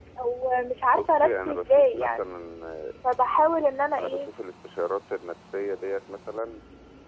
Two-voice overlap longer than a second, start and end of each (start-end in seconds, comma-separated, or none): 0.9-2.3